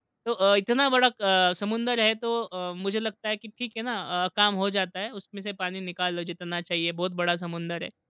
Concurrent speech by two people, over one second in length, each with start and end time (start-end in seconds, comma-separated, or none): none